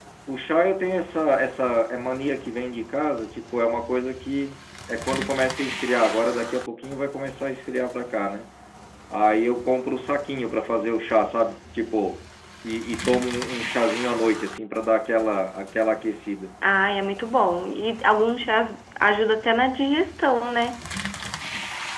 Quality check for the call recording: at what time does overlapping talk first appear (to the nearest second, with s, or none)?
none